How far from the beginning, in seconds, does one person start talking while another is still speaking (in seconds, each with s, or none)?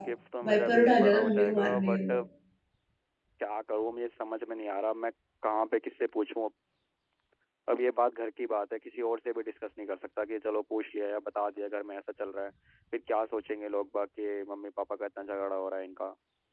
0.5 s